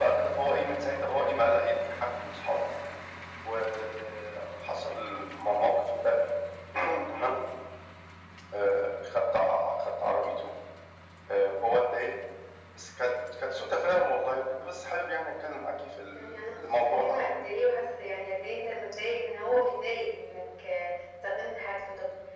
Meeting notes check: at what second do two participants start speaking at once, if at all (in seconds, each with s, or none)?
16.1 s